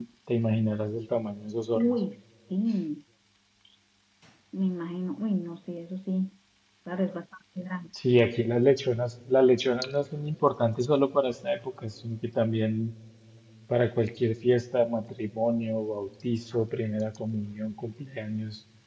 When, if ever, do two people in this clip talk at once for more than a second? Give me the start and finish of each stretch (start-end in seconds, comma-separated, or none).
none